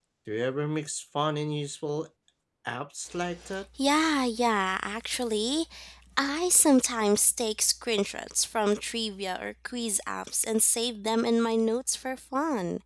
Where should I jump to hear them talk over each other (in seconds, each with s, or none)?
none